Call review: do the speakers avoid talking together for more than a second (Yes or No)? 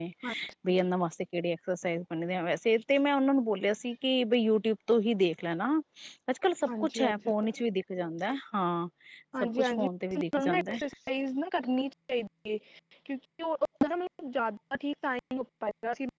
No